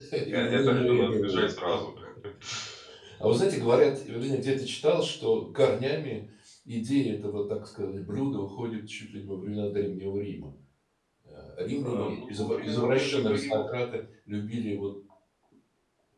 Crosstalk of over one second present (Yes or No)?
Yes